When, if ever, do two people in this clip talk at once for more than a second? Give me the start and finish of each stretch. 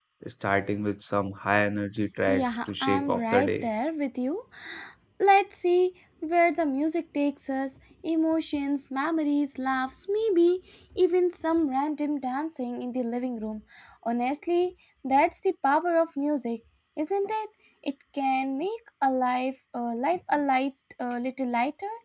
2.3-3.7

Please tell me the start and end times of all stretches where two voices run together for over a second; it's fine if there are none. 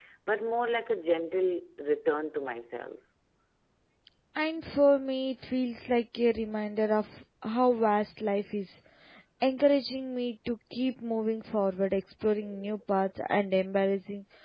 none

